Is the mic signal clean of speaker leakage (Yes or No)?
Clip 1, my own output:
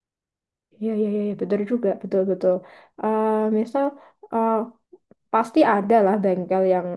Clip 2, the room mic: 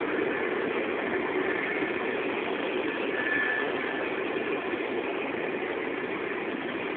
Yes